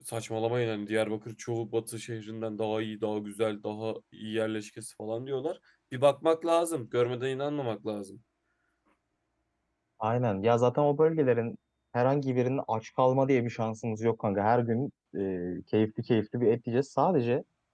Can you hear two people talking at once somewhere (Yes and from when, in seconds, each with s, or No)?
No